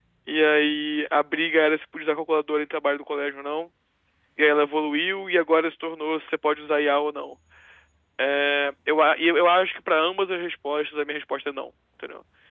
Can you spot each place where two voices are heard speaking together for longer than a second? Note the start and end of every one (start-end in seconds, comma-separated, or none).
none